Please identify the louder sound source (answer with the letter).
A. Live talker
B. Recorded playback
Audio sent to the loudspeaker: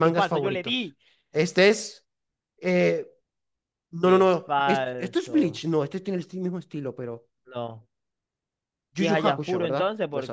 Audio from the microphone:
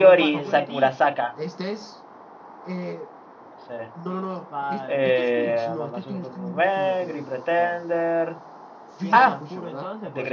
A